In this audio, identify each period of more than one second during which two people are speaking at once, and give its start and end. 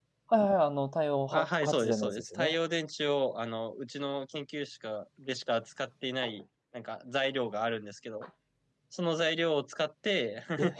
1.3-2.6

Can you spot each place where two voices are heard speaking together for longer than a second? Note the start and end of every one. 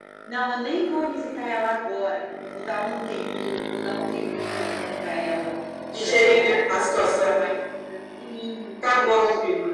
6.0-7.3

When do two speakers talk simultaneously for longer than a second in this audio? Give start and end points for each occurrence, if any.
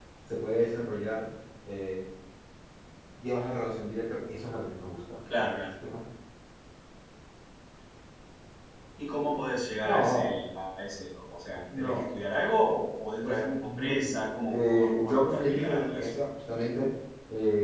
13.2-16.1

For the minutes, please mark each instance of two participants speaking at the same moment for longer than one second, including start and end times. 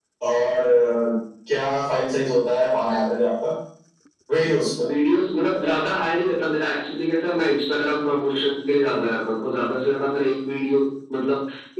none

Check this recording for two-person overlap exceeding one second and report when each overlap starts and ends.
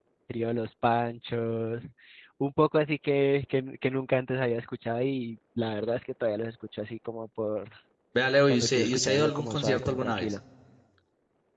8.5-10.3

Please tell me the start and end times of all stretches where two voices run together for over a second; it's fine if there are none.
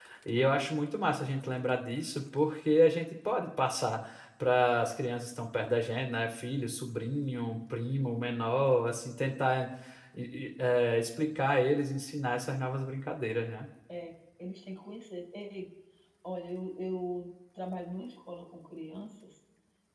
none

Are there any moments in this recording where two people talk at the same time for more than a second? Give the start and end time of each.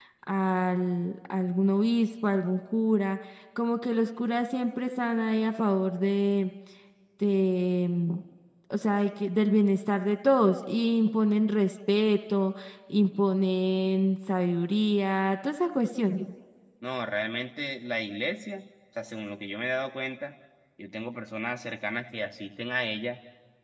none

